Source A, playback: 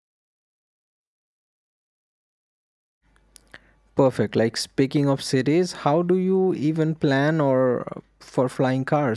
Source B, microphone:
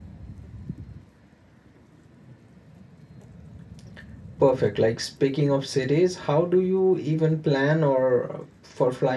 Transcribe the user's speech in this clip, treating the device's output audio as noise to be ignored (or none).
none